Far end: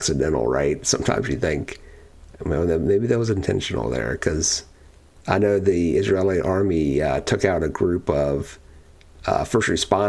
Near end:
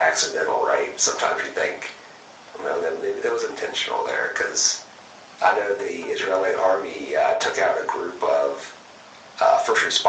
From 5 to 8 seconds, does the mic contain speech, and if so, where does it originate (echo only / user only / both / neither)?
echo only